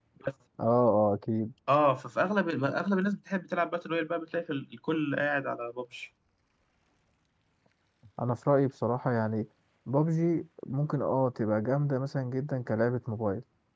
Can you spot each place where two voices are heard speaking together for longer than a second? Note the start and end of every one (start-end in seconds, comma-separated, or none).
none